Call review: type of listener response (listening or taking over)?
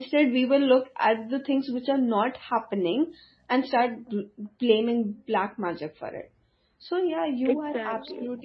listening